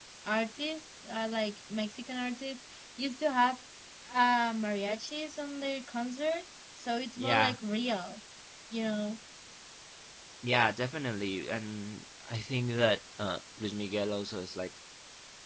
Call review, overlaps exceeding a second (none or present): none